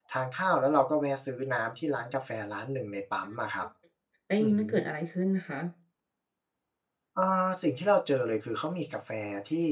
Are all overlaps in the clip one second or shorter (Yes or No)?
Yes